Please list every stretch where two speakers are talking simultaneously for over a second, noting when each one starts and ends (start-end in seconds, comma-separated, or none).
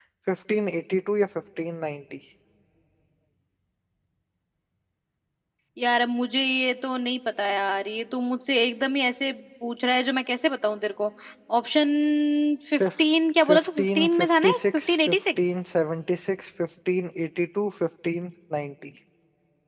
13.4-15.5